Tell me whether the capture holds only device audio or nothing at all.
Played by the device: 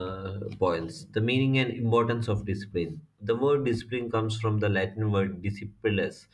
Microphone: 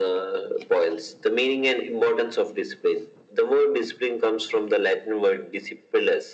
Yes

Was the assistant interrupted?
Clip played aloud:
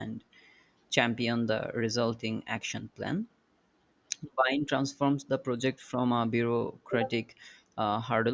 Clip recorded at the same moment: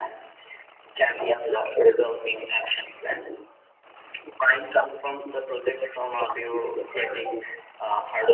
No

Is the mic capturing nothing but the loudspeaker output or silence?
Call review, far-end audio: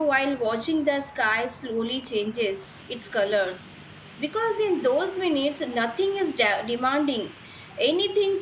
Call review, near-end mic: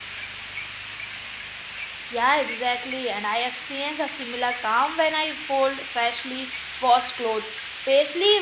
No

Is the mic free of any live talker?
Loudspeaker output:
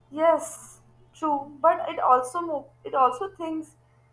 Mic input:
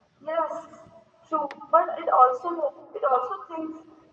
Yes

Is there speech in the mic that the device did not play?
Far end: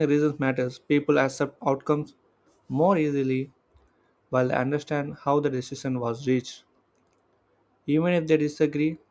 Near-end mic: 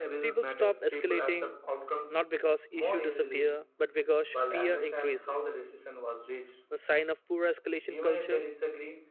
Yes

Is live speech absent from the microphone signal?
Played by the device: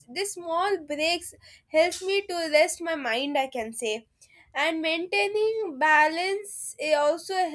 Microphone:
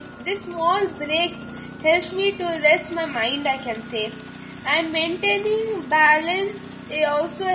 Yes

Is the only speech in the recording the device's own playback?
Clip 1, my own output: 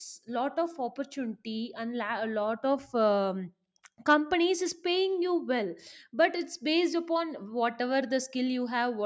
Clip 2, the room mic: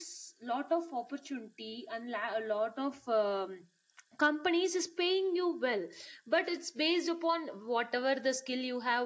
Yes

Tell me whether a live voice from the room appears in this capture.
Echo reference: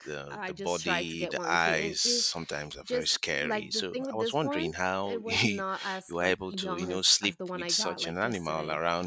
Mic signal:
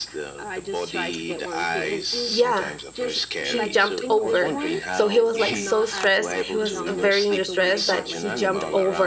Yes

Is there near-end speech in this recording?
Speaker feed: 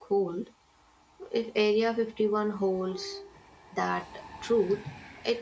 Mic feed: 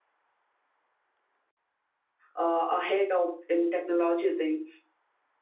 Yes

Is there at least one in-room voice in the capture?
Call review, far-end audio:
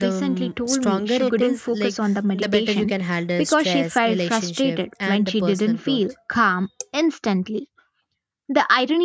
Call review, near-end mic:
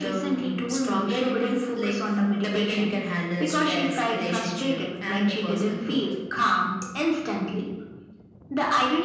No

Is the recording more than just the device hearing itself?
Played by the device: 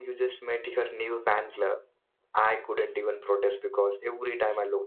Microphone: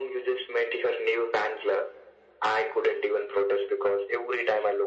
No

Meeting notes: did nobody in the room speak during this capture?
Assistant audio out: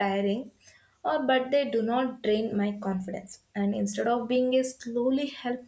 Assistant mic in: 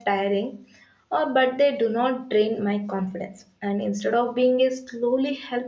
Yes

